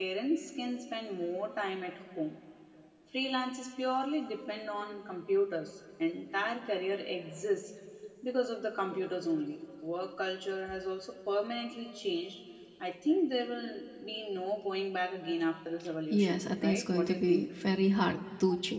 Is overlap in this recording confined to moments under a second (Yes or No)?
No